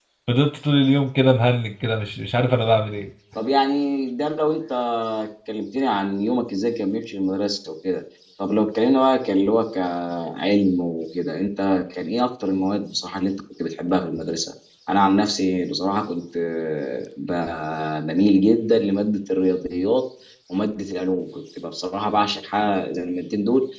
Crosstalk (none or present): none